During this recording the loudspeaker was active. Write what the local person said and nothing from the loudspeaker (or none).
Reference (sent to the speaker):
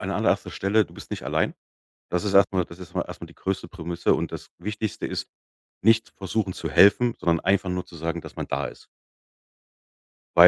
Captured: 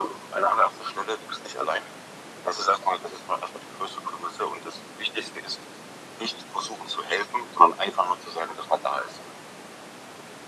none